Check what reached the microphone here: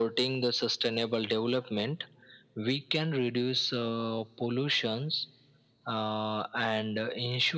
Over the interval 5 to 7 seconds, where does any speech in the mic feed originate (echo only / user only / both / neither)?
echo only